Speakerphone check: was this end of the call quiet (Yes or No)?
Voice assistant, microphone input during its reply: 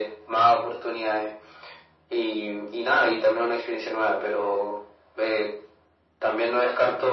Yes